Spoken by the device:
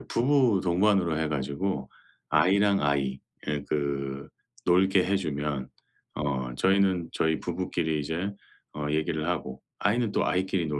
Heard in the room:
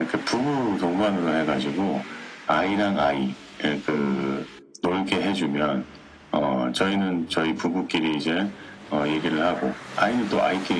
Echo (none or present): present